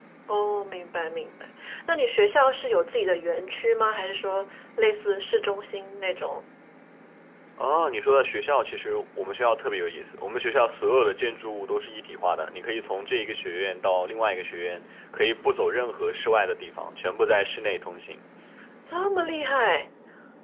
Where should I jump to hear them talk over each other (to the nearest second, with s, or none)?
none